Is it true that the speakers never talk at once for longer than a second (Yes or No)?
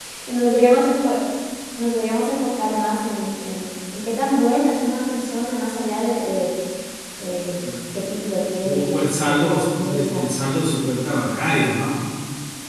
No